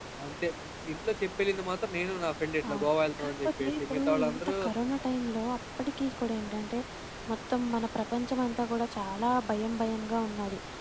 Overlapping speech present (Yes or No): Yes